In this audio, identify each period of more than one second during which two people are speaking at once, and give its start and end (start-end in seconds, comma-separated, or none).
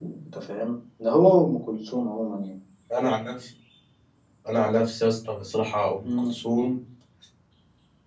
none